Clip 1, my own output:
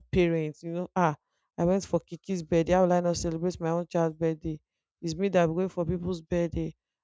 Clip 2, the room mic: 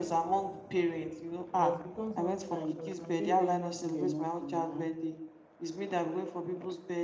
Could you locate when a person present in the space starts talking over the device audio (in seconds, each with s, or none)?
1.5 s